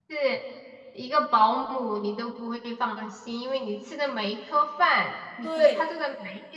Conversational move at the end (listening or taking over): listening